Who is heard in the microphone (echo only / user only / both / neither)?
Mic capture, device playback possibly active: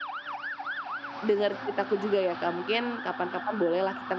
user only